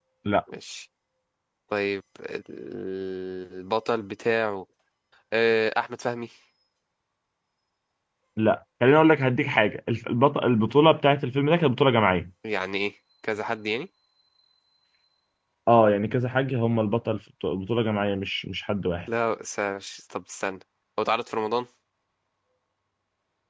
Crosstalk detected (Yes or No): No